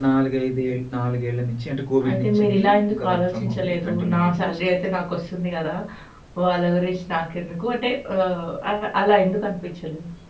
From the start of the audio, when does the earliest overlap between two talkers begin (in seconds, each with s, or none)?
2.0 s